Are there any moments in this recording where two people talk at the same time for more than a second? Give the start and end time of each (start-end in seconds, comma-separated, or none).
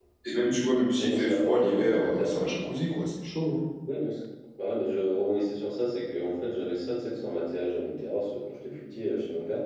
1.0-2.3